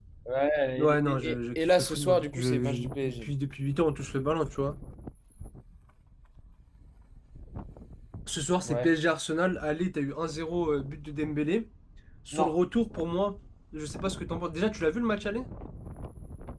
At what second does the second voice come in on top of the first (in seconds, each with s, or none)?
0.8 s